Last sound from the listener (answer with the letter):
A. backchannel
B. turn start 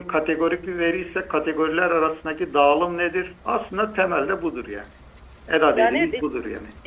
B